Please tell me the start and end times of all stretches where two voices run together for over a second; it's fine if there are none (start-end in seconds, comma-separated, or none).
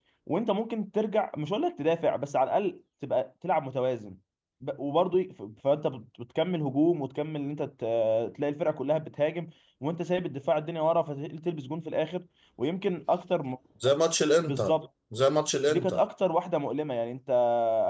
none